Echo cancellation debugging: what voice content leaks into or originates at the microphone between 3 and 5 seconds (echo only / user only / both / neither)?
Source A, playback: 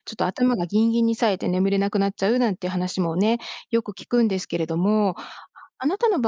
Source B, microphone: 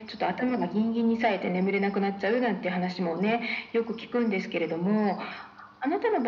echo only